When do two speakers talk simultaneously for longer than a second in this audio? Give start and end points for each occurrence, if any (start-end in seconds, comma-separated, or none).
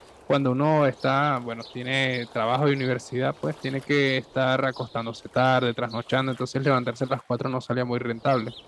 none